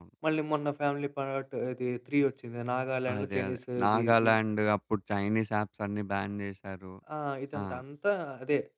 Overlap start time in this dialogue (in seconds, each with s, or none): 3.1 s